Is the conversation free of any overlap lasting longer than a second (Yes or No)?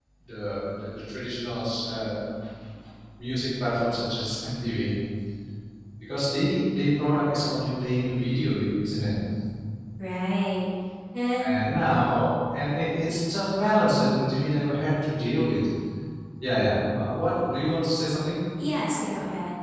Yes